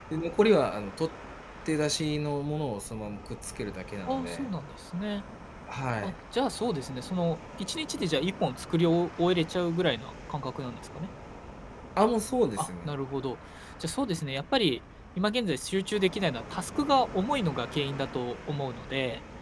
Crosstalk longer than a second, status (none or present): none